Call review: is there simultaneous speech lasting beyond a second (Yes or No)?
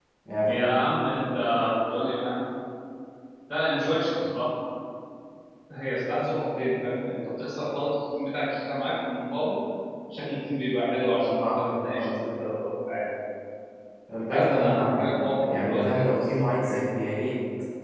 Yes